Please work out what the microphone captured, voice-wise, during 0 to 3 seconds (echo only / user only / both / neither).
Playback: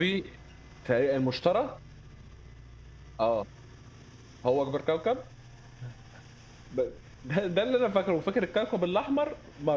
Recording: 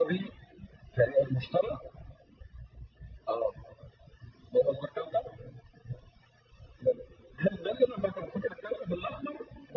echo only